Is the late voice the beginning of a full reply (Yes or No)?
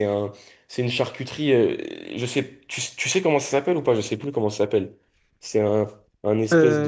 No